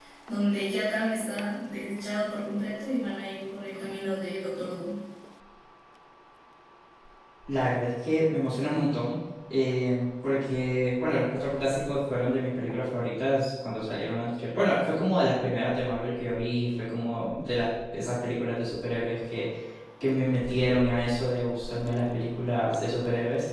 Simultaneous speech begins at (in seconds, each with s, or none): none